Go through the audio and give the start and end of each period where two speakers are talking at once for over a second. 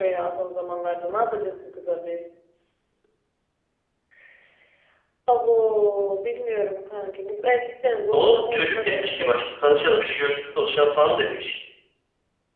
8.1-9.3

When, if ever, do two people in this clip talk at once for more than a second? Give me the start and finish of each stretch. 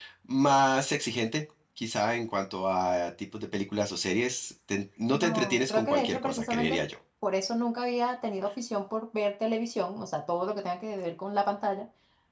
5.1-6.8

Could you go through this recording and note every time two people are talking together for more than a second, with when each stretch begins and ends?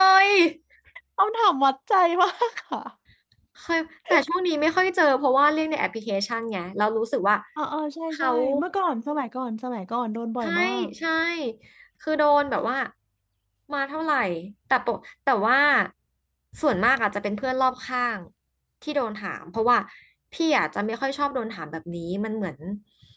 none

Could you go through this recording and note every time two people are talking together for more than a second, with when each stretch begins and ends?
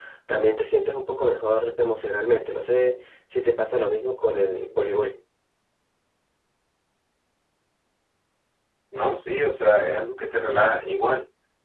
none

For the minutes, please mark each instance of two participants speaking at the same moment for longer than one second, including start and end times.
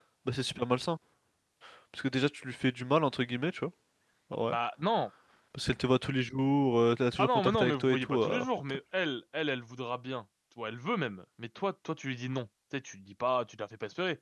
7.2-8.8

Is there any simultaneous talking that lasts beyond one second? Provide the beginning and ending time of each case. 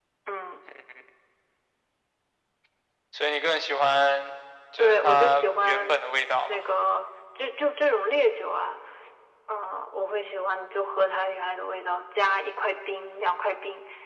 4.8-6.0

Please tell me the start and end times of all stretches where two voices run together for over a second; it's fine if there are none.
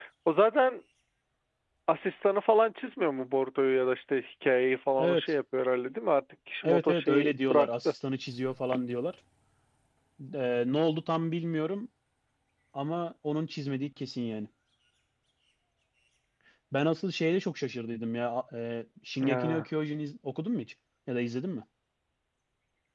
6.6-7.9

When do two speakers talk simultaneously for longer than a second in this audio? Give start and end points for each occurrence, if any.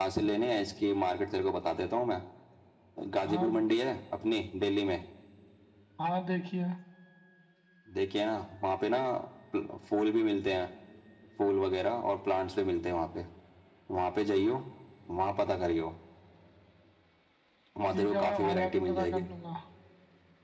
17.9-19.2

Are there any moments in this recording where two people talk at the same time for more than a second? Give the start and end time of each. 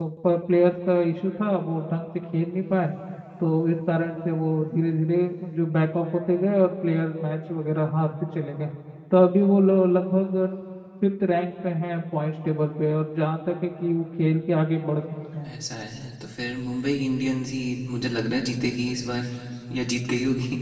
none

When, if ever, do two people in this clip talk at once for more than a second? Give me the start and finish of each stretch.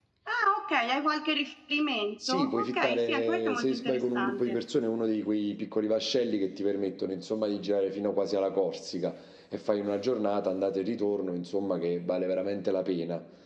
2.3-4.6

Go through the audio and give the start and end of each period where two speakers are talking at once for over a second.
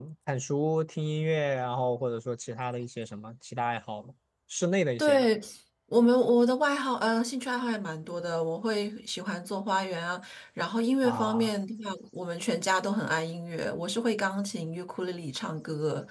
none

